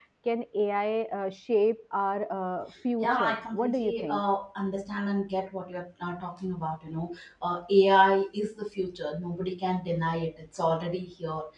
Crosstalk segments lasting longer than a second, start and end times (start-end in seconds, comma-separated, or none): 3.0-4.2